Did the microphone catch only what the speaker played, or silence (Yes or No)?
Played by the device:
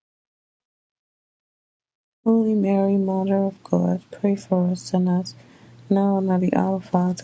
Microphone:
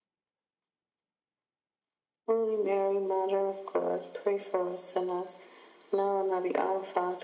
Yes